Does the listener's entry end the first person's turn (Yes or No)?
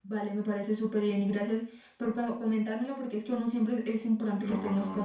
Yes